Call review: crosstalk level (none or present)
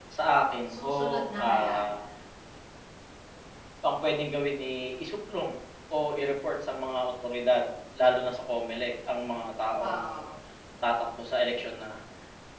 present